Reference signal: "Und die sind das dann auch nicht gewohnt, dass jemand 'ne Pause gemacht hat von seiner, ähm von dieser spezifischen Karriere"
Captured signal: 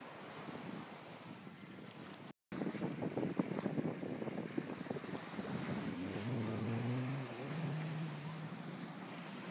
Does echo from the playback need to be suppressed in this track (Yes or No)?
No